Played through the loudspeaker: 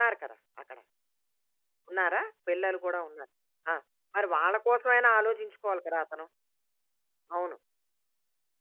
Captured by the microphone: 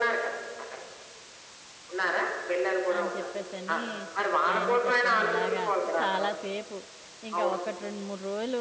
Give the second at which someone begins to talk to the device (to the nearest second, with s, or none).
3 s